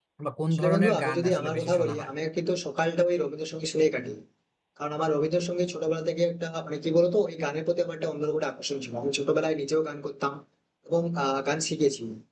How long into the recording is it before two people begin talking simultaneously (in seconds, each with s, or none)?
0.5 s